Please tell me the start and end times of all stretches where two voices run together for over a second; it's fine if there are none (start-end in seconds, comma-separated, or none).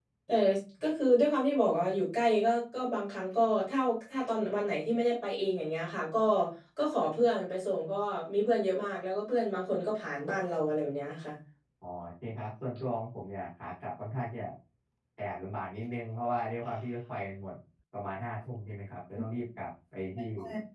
none